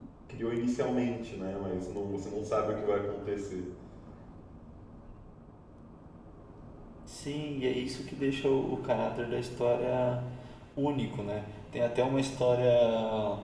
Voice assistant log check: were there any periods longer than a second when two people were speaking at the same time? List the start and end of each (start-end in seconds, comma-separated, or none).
none